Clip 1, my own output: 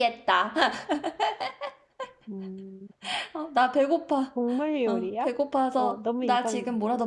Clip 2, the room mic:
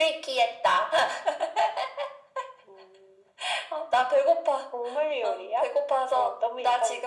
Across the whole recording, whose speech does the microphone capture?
echo only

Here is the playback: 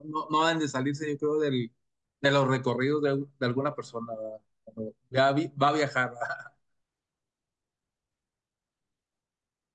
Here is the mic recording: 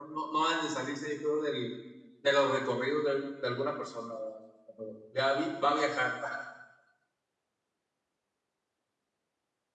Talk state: echo only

